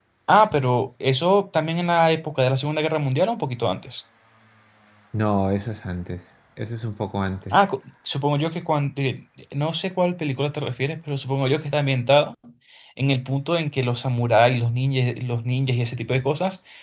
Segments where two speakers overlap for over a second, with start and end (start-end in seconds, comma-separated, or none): none